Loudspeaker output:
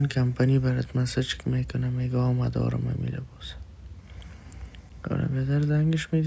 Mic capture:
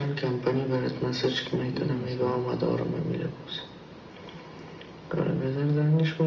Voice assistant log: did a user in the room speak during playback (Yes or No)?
Yes